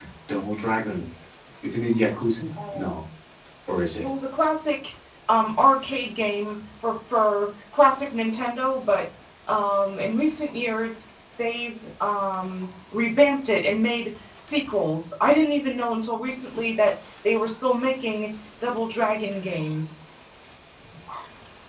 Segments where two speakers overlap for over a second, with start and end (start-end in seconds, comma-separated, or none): none